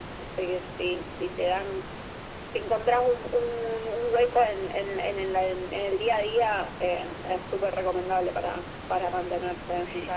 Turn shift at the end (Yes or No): Yes